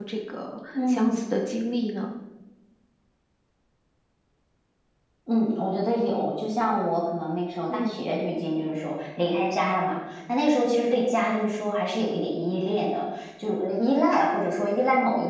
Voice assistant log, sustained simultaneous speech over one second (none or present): none